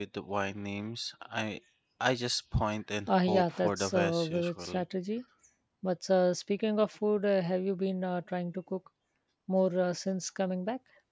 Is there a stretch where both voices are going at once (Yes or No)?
Yes